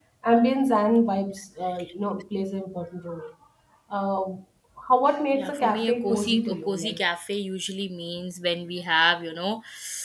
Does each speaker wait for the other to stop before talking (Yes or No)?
No